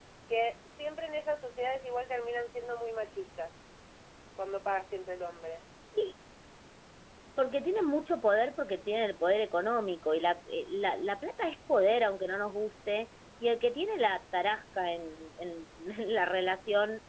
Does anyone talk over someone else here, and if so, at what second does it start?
none

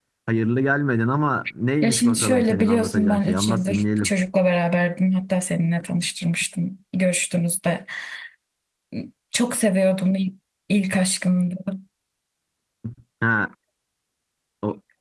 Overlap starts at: 1.8 s

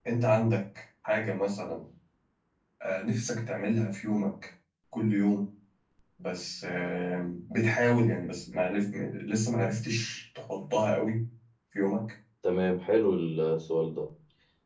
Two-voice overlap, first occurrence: none

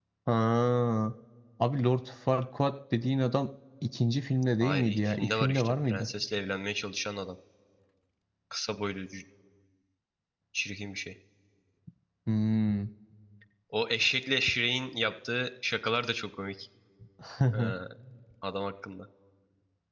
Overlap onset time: 4.6 s

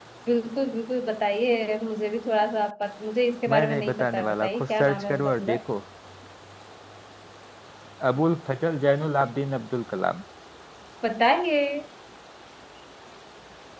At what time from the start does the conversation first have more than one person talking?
3.5 s

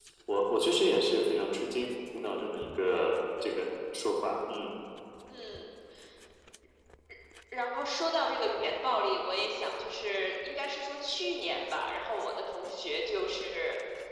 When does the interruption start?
none

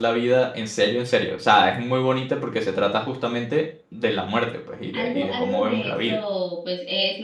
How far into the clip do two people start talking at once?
4.9 s

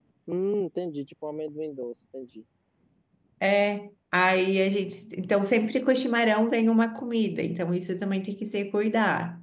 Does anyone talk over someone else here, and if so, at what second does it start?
none

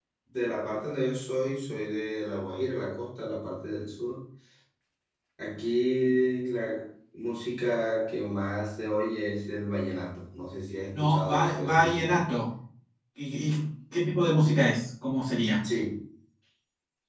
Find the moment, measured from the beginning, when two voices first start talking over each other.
10.9 s

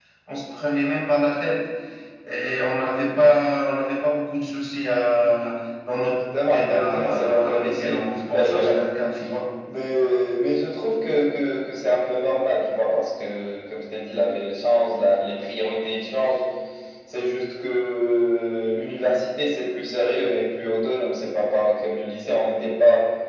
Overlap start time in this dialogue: 6.4 s

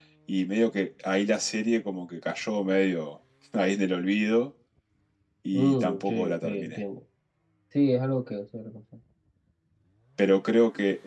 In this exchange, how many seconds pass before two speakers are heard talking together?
5.5 s

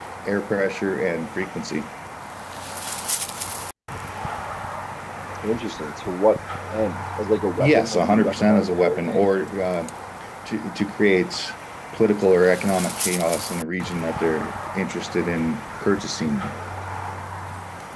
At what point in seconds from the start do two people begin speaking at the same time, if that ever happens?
7.6 s

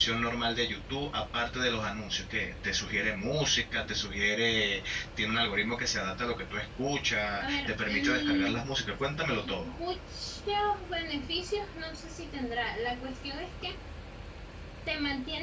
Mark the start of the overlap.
7.4 s

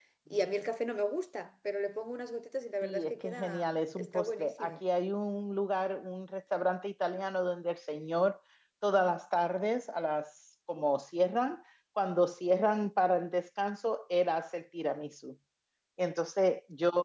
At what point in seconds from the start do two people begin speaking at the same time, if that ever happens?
2.8 s

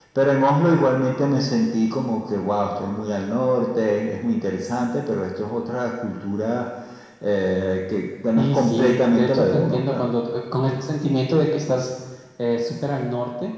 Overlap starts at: 8.3 s

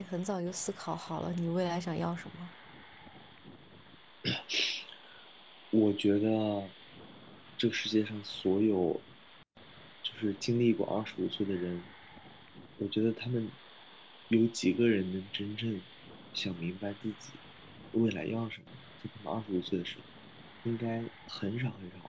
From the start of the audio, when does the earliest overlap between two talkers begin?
none

